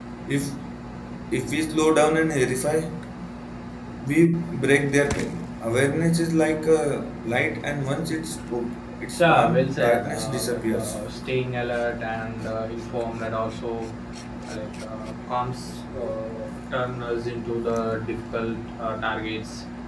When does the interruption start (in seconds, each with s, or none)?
9.2 s